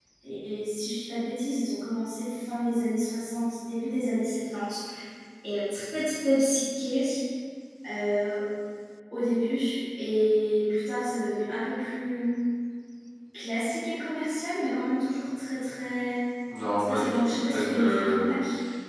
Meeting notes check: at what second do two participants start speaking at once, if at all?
17 s

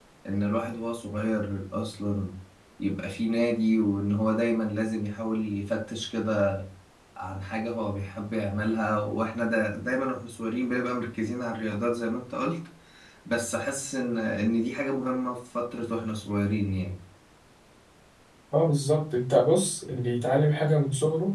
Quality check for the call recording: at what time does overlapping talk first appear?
none

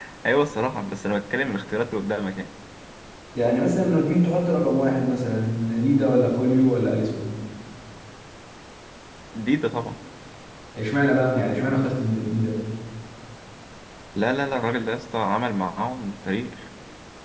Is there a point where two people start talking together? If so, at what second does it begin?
none

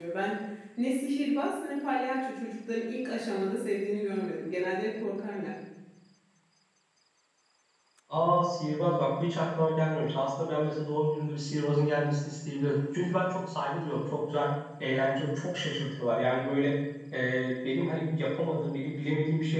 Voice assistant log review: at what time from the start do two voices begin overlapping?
none

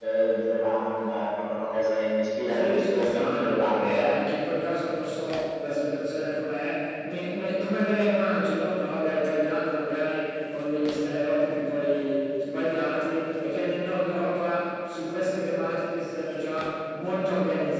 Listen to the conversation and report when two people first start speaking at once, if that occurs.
3 s

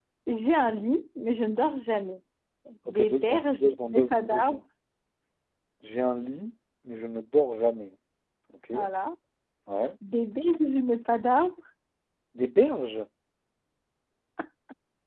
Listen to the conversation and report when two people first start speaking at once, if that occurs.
3 s

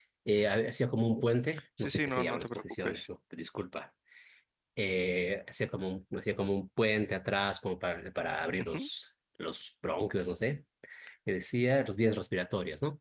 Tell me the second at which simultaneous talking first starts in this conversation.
2 s

